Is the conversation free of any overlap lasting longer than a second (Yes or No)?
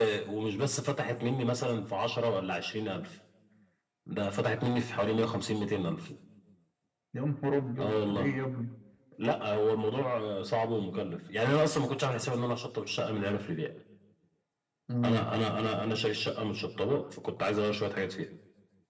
Yes